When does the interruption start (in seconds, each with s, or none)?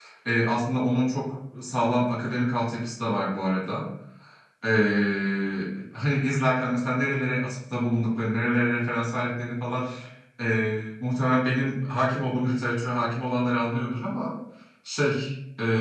none